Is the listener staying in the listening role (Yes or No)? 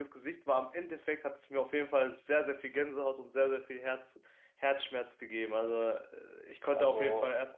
Yes